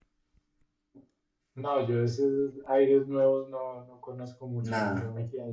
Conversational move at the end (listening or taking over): listening